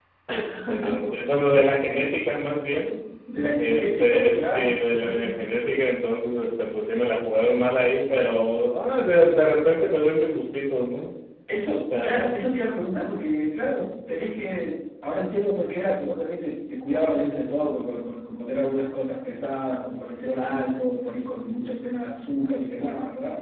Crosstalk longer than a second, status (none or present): present